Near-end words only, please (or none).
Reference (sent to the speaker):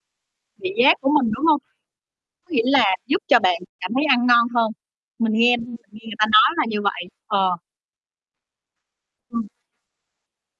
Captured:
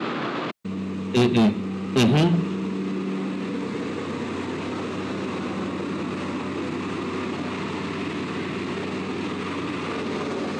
Ừm, ừm, ừm hứm.